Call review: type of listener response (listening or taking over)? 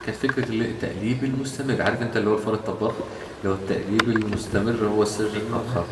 listening